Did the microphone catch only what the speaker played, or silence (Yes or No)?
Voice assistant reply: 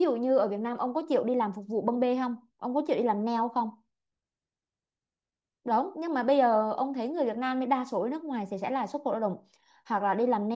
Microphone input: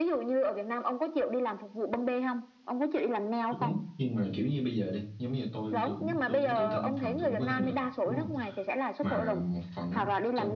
No